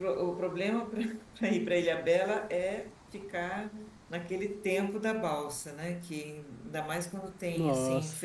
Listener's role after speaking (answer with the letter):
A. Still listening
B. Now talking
B